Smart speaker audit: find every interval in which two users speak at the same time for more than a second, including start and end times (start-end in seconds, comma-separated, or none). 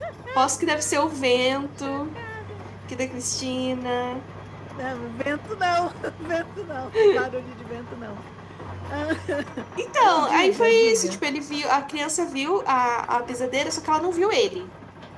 10.0-11.2